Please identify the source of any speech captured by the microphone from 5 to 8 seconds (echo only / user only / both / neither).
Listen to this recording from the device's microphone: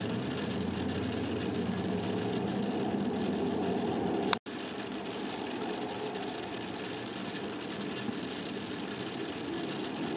neither